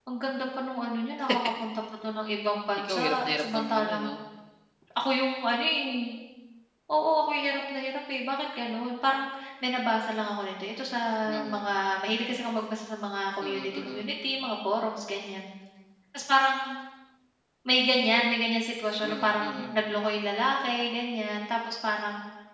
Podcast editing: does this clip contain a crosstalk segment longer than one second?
Yes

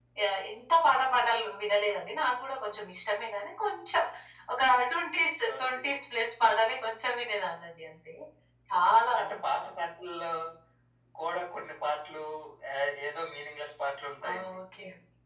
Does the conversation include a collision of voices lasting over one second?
No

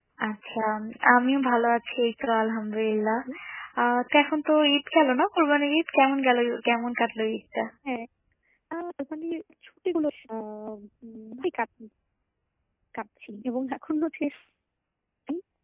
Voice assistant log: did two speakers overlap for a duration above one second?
No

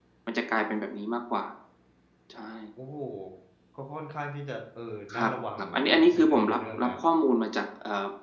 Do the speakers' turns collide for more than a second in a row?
Yes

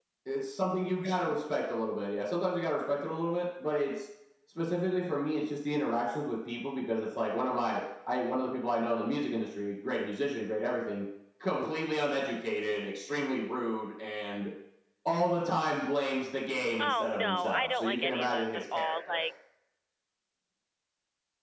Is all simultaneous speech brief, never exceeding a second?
No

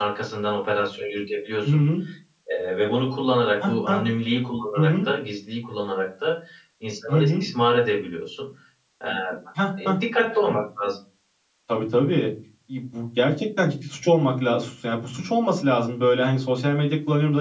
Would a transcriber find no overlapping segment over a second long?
Yes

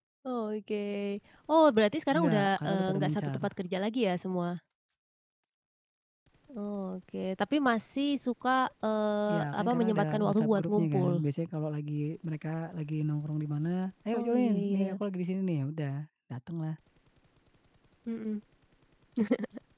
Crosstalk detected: Yes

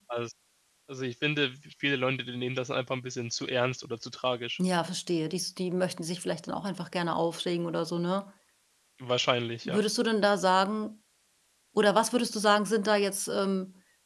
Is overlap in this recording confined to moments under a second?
Yes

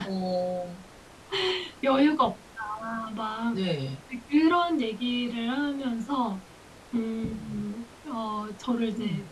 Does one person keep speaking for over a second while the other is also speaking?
No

